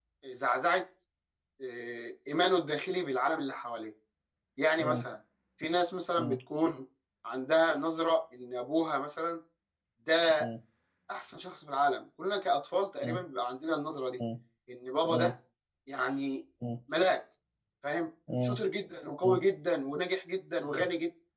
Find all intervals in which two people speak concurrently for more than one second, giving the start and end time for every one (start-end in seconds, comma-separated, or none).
none